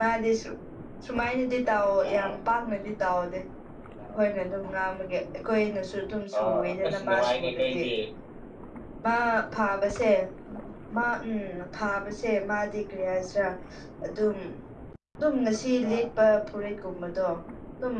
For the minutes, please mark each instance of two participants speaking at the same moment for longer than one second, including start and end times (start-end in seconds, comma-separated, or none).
6.4-7.8